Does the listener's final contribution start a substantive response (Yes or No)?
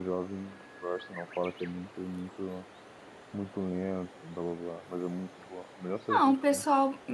Yes